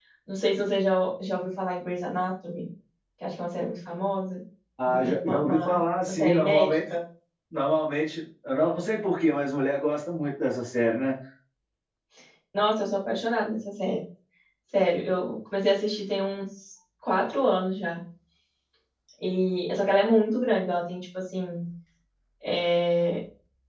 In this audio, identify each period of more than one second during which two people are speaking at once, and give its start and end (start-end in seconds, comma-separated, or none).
4.8-6.8